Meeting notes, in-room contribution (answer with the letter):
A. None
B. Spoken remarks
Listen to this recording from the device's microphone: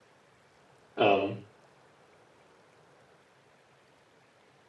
B